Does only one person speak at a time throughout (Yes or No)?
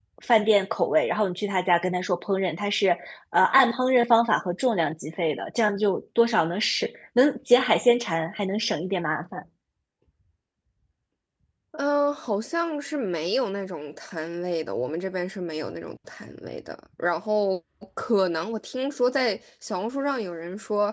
Yes